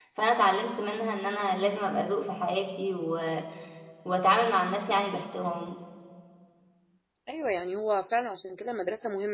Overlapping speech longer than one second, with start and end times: none

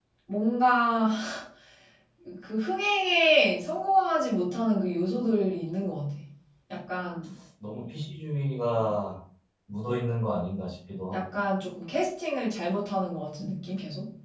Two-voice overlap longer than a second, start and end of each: none

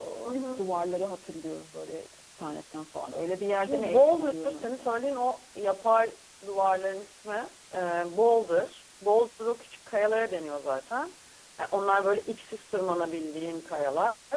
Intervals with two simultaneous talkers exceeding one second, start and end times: 3.6-4.8

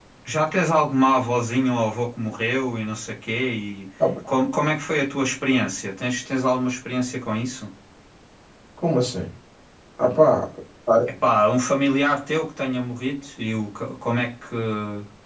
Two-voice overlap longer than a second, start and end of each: none

